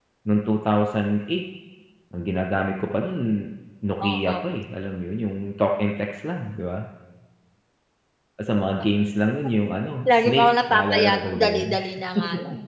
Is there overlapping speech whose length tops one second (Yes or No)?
Yes